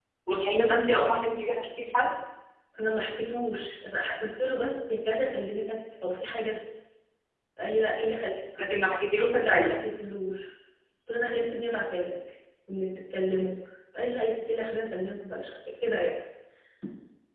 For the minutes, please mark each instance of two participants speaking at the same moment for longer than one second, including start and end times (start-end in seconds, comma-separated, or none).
none